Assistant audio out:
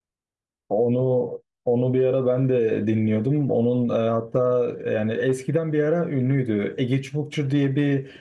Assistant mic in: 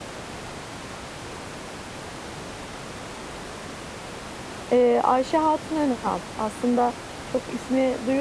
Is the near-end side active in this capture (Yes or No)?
Yes